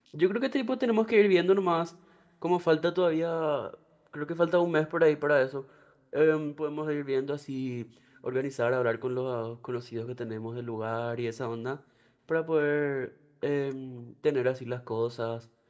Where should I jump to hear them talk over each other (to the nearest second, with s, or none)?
none